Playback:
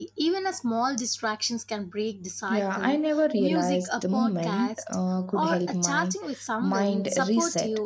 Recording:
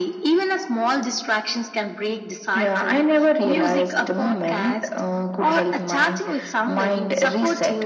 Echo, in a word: present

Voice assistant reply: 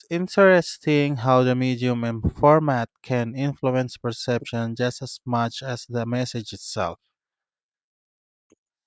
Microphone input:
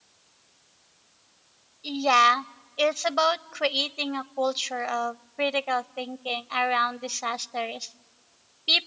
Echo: none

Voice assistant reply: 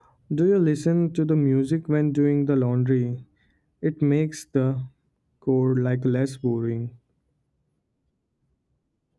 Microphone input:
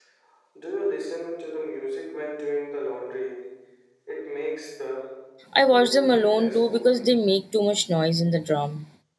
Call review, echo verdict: present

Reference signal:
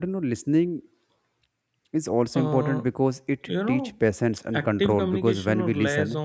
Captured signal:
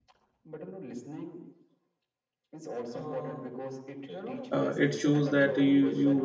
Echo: present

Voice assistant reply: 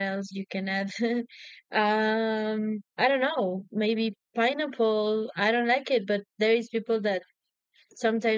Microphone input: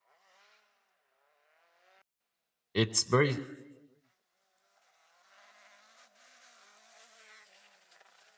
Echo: none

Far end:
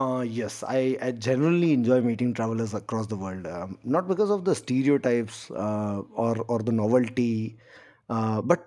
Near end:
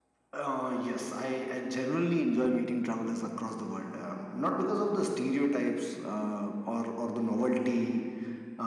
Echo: present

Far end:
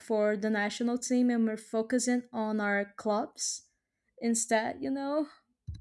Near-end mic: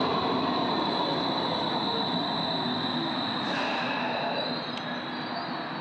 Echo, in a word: none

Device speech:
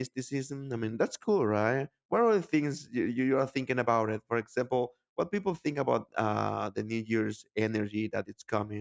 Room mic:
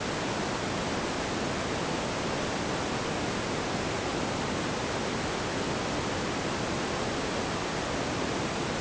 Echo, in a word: none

